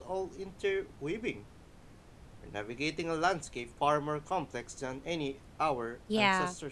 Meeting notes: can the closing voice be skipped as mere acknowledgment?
No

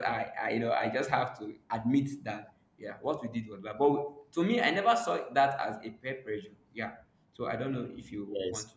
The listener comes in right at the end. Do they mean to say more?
Yes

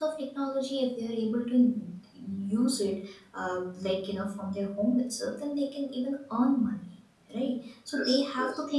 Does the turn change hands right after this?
No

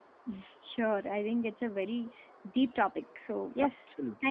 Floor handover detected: No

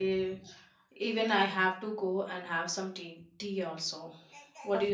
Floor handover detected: Yes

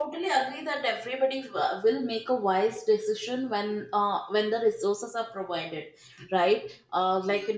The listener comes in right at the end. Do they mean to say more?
No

